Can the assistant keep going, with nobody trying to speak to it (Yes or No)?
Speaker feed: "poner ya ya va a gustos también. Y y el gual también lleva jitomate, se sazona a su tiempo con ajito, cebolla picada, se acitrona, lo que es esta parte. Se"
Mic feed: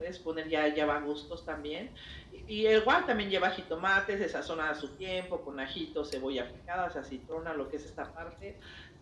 Yes